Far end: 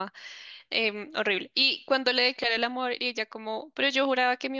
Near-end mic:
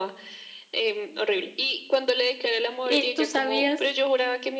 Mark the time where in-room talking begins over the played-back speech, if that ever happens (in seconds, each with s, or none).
2.8 s